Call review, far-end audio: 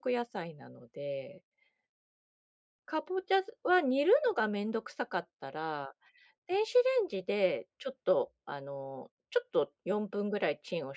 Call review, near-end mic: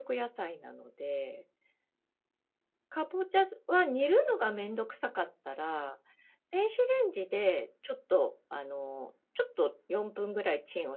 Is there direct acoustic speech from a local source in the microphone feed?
No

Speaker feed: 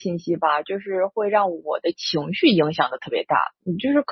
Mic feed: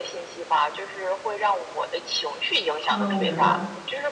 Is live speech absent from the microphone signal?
No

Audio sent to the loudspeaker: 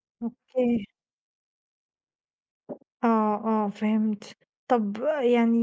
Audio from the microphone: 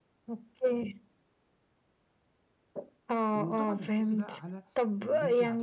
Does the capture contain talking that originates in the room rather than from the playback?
Yes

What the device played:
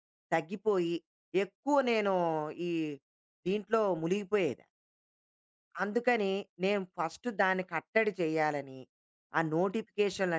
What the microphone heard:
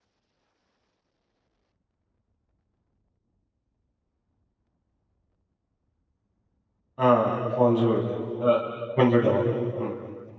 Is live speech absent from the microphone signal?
No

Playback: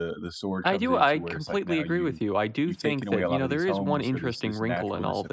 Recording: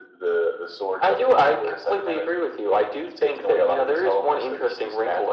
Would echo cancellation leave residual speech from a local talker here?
No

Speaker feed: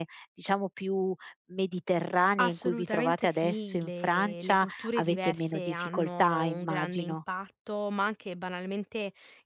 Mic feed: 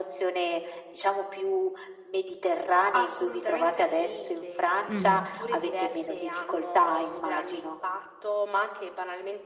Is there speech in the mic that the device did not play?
Yes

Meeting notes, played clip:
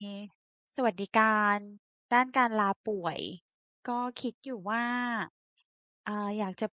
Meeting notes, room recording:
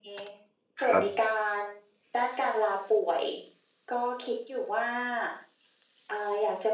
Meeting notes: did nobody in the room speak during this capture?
No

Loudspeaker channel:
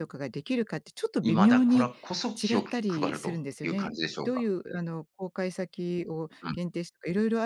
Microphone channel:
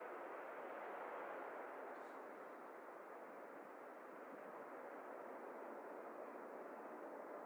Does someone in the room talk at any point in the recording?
No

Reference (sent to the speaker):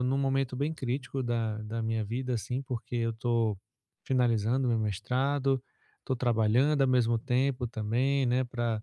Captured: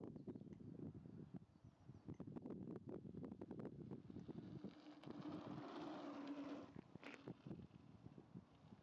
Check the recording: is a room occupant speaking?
No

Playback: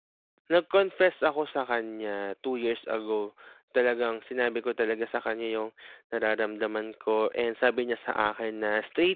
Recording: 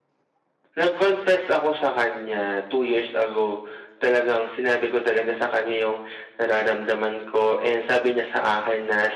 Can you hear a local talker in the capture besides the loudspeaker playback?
No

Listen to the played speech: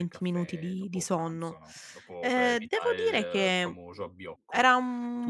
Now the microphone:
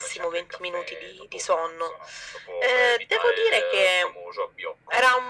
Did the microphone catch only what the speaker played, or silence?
Yes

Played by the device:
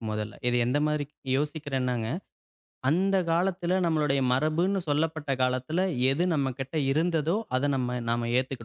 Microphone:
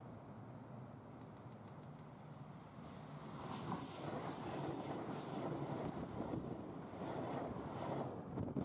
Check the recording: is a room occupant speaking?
No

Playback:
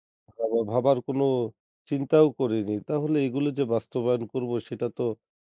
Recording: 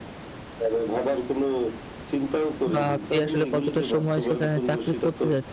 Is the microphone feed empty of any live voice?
No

